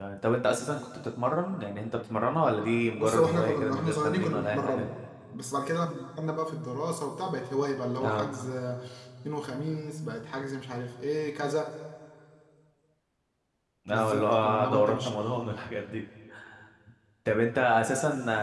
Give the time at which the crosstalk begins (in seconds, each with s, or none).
3.0 s